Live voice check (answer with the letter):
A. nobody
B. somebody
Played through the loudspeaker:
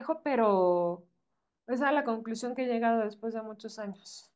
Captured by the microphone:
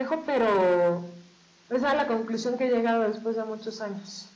A